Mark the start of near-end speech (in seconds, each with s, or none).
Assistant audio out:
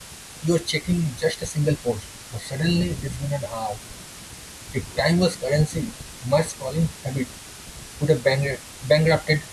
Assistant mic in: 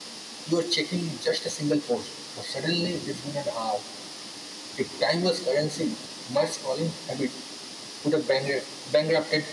none